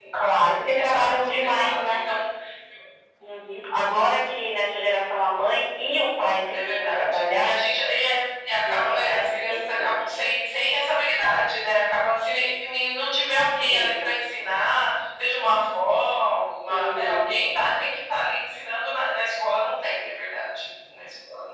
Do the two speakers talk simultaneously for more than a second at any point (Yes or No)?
Yes